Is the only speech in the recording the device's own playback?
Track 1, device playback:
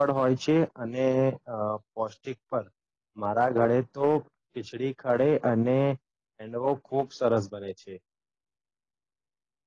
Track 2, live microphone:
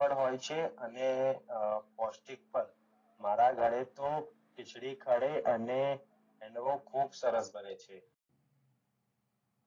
Yes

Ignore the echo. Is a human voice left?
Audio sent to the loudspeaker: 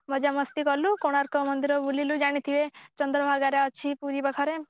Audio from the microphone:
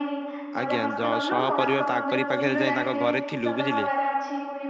Yes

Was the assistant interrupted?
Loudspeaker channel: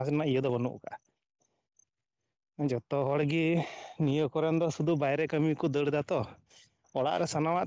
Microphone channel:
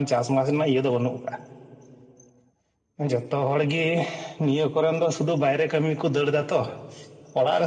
No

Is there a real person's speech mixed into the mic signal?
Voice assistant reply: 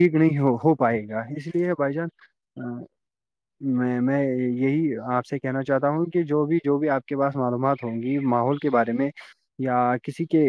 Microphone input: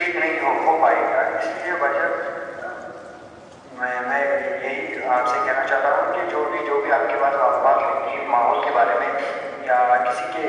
No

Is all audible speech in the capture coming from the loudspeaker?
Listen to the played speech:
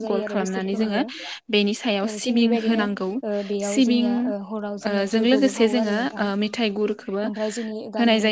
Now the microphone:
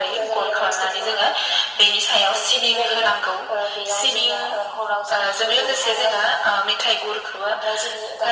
Yes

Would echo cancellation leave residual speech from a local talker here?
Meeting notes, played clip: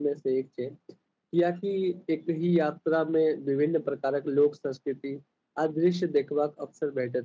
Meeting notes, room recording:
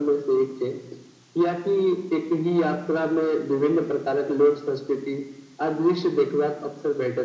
No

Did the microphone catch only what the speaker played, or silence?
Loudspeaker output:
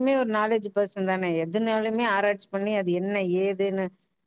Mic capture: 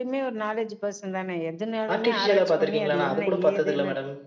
No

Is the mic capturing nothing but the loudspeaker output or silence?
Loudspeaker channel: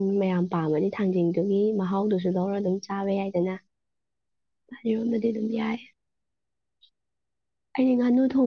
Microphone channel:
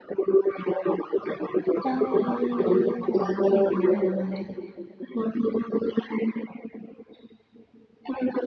No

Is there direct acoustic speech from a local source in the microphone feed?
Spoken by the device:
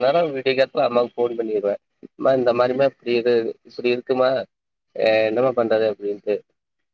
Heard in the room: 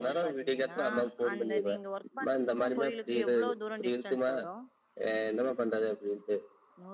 Yes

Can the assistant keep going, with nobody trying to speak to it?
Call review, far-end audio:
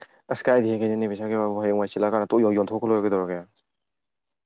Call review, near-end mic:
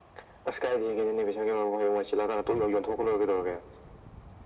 Yes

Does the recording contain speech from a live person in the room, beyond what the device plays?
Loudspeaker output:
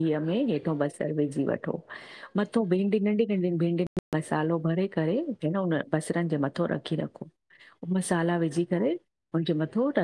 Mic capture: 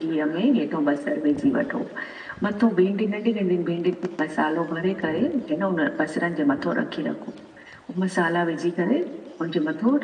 No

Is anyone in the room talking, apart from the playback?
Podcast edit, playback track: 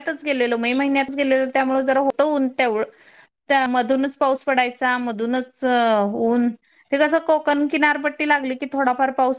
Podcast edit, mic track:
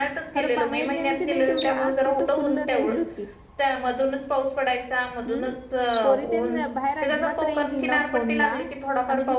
Yes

